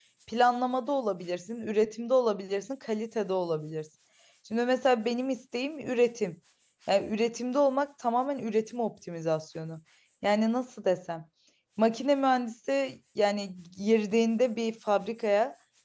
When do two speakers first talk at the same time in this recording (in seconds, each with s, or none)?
none